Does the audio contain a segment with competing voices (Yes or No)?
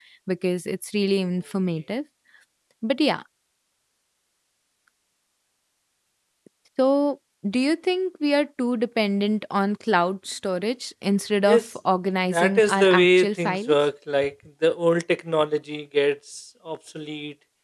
Yes